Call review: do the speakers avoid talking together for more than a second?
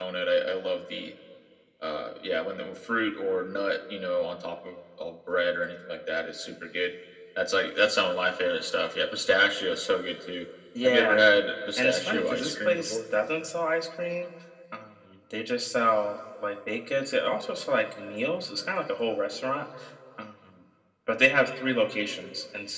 No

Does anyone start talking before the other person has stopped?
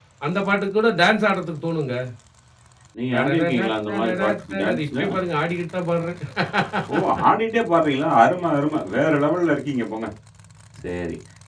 Yes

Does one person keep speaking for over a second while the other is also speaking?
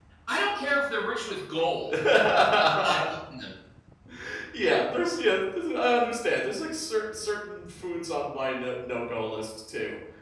No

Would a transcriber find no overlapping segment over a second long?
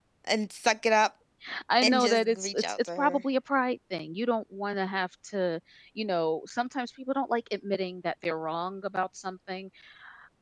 No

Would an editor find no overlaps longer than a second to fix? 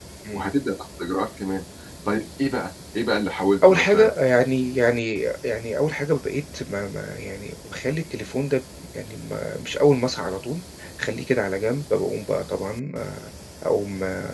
Yes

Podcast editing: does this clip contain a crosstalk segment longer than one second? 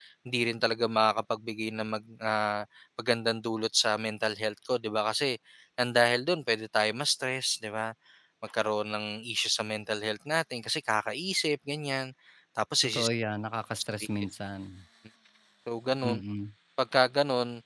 No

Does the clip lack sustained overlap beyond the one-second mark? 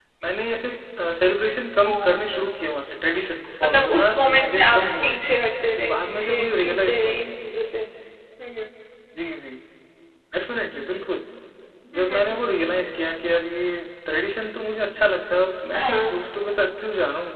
No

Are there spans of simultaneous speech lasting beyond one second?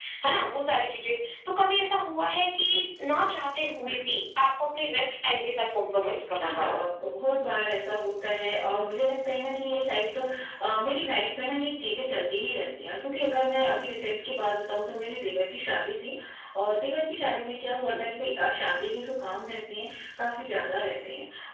No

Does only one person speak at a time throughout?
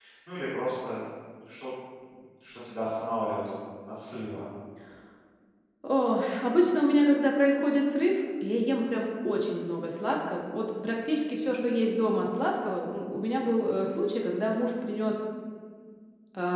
Yes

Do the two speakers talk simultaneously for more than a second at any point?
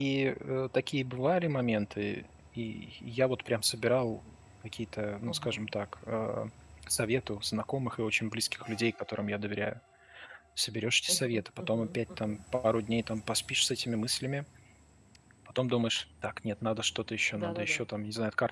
Yes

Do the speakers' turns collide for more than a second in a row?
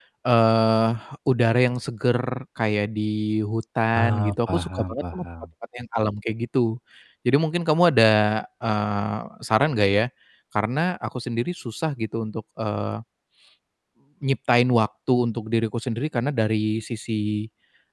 Yes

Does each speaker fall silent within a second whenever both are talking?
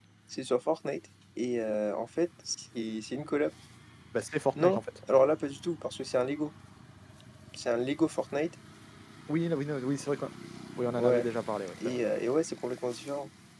Yes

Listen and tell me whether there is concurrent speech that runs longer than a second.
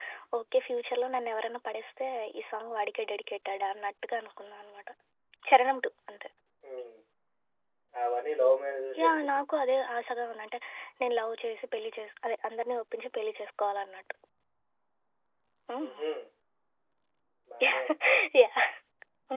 No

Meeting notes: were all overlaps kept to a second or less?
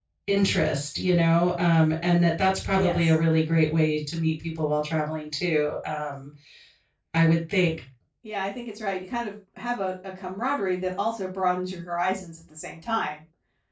Yes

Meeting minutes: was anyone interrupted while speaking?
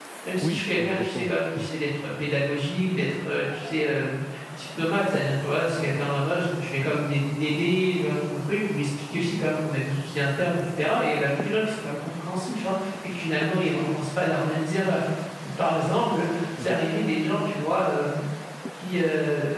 Yes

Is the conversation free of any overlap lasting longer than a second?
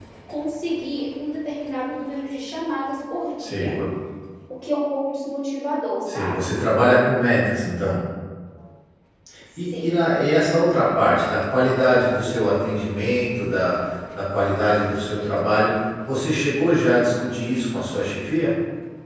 Yes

